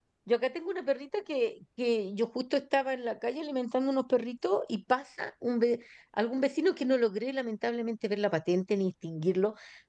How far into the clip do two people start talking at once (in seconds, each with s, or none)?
none